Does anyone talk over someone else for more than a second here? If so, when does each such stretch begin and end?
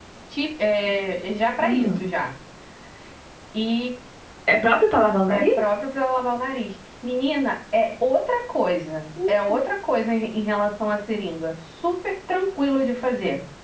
none

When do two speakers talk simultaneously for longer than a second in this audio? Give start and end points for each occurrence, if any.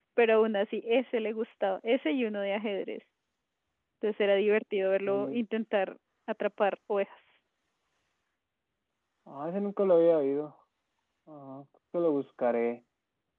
none

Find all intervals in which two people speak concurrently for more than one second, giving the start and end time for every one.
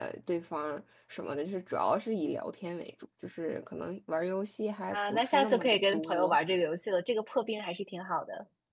4.9-6.4

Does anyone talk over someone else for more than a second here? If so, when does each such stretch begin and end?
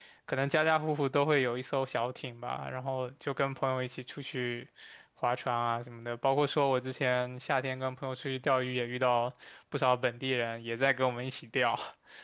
none

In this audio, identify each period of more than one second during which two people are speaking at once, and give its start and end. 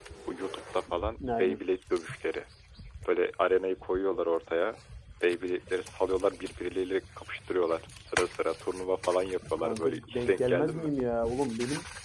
9.6-10.9

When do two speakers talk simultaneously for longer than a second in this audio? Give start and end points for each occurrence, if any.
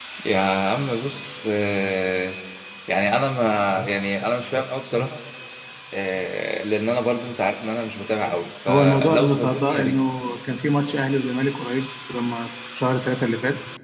8.7-10.0

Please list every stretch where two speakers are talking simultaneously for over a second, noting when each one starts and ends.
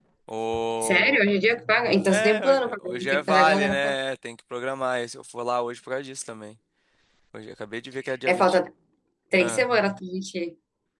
2.1-4.0

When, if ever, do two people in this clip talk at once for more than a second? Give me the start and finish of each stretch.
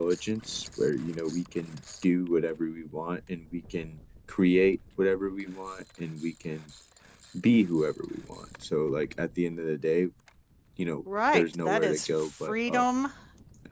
11.3-12.8

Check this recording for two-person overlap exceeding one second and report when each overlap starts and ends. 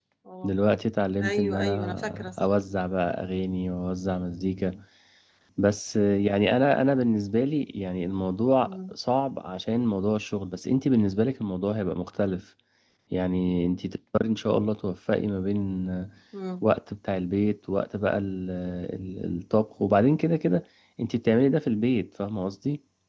1.2-2.5

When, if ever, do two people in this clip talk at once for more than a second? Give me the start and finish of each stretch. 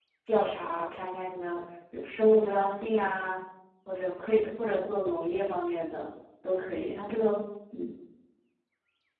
none

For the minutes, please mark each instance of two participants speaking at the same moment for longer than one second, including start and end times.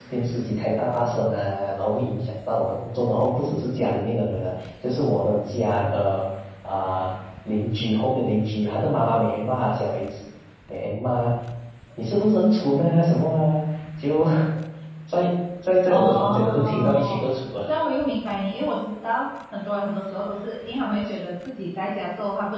15.9-17.2

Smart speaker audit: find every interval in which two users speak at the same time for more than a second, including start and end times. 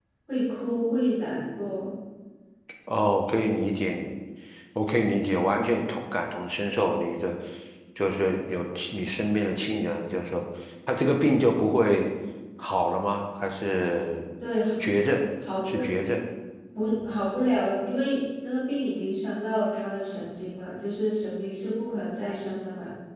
none

